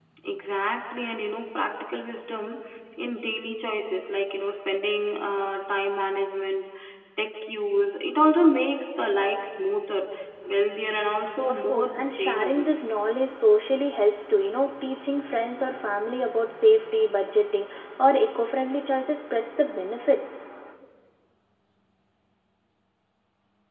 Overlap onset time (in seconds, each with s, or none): 11.5 s